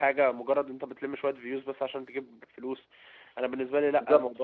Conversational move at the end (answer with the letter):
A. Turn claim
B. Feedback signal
A